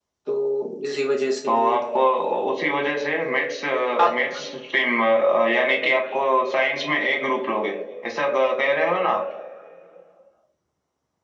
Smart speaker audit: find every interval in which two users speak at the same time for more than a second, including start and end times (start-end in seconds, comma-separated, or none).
none